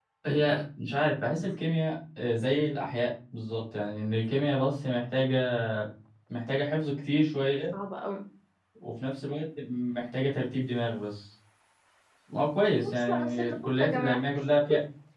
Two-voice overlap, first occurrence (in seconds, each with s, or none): 12.8 s